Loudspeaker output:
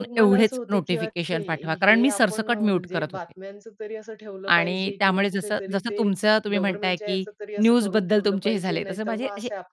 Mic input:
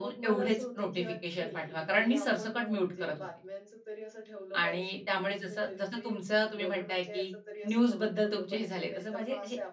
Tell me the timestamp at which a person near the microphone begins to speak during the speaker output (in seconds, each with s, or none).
none